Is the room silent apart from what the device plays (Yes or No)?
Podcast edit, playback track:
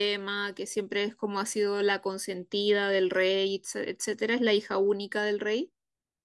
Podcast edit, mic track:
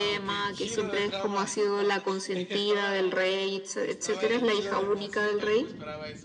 No